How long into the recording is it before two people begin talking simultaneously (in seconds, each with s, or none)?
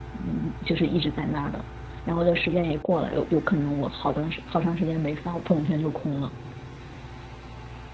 none